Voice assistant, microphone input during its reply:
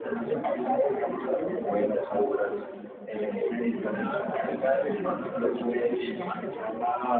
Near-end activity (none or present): none